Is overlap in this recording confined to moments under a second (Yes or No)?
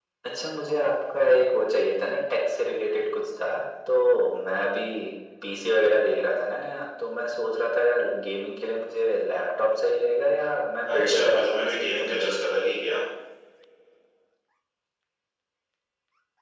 No